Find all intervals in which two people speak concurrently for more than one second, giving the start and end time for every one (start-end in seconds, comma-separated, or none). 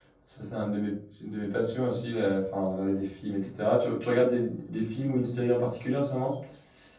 none